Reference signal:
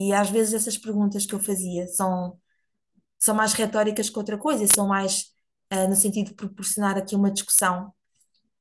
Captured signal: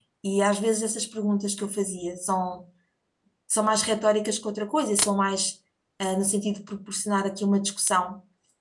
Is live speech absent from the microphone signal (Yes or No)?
Yes